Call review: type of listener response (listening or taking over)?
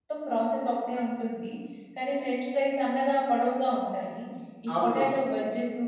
listening